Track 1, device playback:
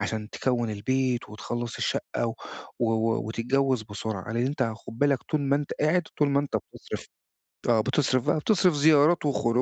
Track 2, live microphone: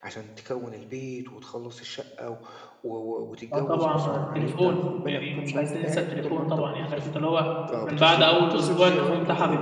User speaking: Yes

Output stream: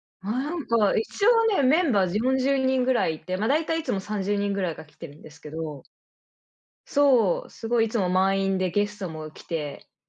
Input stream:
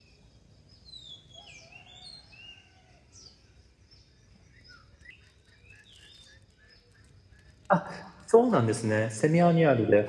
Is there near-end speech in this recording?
Yes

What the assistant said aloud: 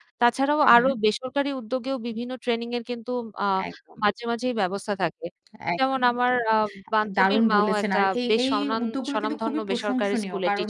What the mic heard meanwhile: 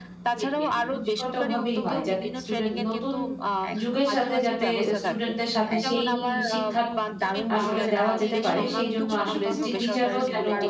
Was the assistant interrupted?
Yes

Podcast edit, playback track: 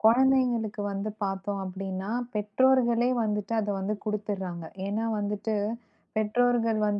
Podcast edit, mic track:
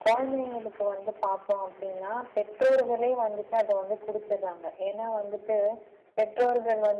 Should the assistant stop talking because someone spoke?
No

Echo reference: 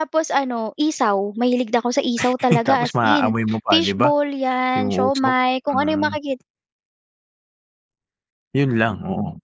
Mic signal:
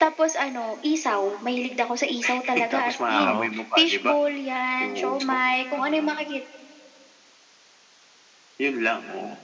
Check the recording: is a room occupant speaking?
Yes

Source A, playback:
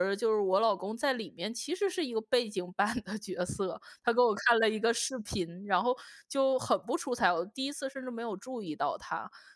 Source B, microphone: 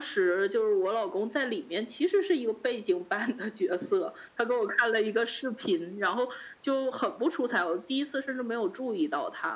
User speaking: No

